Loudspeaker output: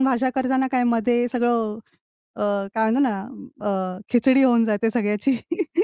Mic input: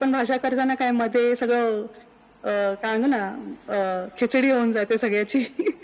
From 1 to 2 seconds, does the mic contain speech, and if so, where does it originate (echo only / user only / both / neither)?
echo only